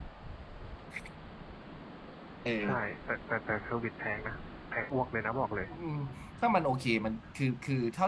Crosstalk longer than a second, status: none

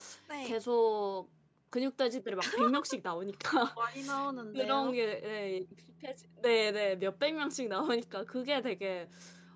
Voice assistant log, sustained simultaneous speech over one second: none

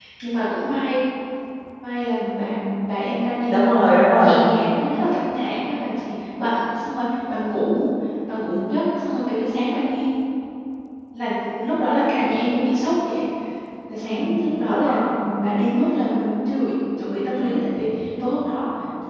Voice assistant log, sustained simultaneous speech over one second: none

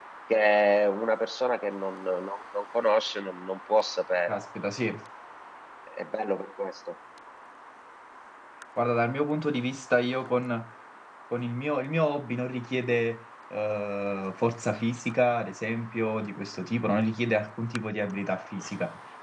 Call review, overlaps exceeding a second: none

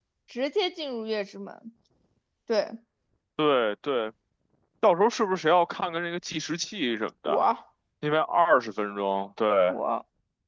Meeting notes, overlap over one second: none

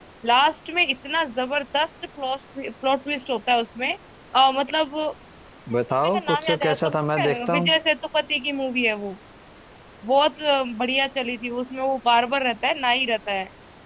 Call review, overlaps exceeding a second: present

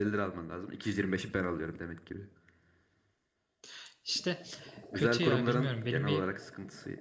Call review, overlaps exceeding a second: present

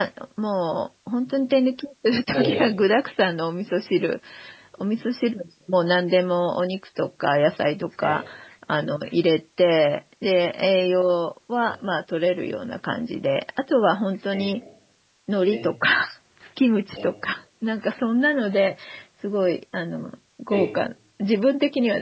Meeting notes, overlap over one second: none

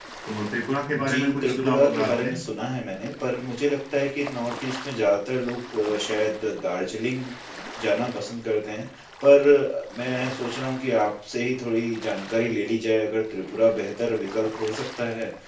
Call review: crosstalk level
present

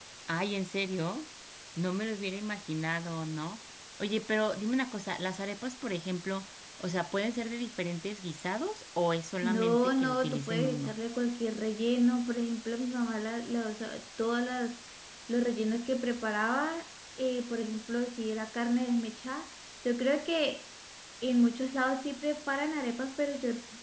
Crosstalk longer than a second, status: present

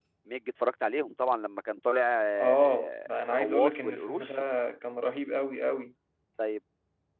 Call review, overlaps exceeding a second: present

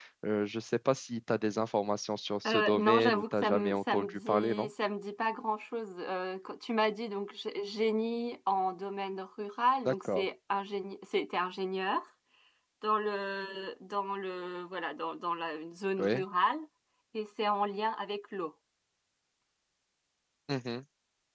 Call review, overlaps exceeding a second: present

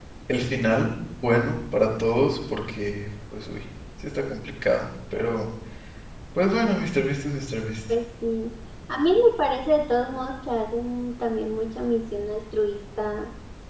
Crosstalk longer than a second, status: none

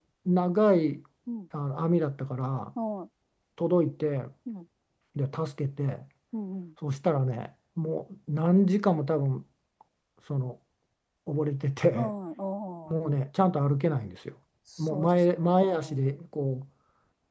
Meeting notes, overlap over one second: present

